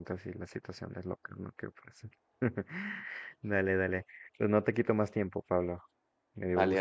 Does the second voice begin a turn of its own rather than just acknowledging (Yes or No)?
Yes